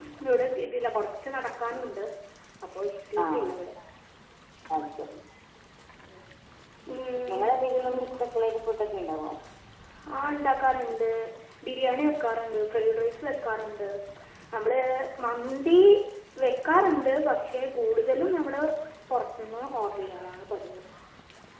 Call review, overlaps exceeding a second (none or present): none